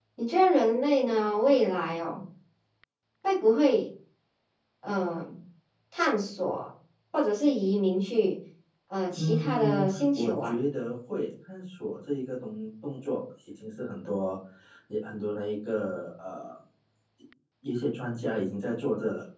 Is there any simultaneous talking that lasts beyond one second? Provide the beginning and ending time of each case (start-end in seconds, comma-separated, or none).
9.2-10.5